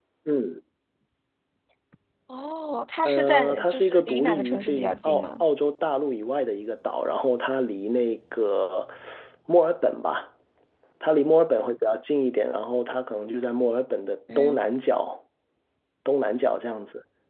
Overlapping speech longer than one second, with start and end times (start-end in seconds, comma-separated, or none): 3.0-5.4